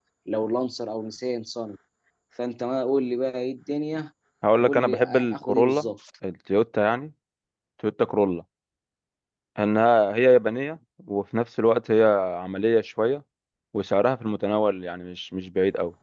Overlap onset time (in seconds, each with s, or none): 4.6 s